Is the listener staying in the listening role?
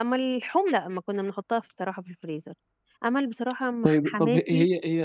No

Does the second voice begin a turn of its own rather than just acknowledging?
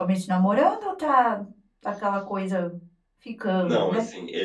Yes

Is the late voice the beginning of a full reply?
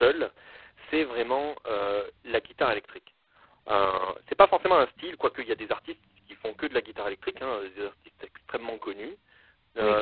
No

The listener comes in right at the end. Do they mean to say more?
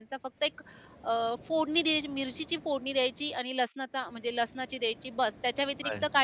No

